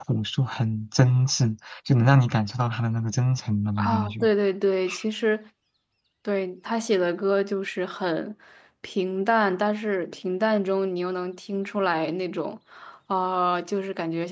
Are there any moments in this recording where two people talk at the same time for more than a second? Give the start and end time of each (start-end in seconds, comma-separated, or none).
none